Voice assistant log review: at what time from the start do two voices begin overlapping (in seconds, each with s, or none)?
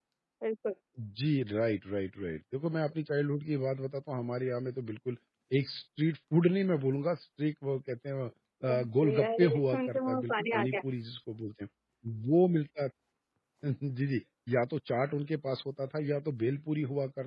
8.6 s